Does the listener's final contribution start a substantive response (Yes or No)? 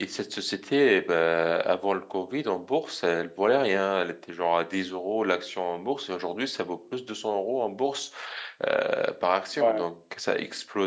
No